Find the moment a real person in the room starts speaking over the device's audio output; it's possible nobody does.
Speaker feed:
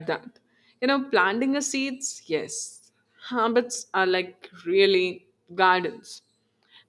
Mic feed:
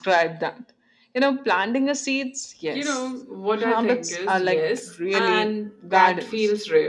2.7 s

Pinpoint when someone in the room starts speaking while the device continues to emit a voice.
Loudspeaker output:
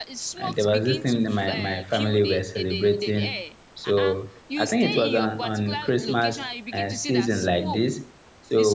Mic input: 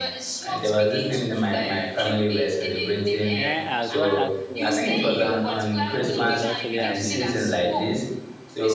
3.3 s

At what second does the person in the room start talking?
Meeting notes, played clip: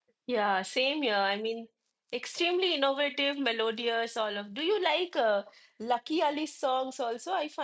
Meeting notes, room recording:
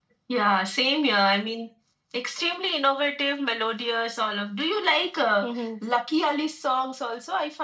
5.4 s

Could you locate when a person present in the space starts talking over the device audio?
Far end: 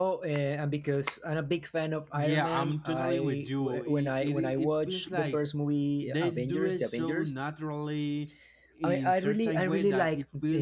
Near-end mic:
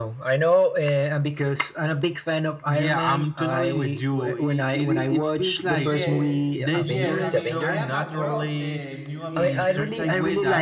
5.7 s

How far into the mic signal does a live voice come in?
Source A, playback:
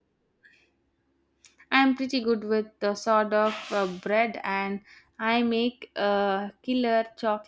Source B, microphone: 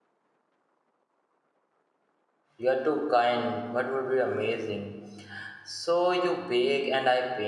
2.6 s

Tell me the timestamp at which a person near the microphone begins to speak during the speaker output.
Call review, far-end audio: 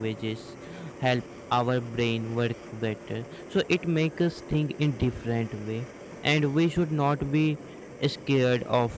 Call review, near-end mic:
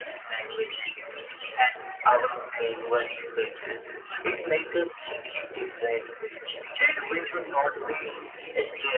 none

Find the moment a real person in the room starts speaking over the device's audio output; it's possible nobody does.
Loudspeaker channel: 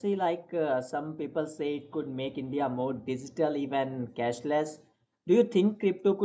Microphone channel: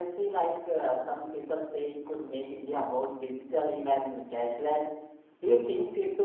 none

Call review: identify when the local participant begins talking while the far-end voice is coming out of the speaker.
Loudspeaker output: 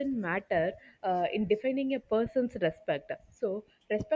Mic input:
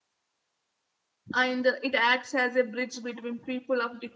1.3 s

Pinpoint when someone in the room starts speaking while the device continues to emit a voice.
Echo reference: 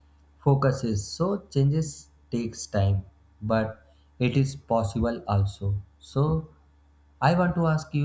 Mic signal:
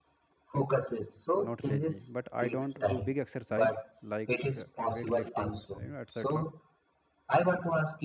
1.4 s

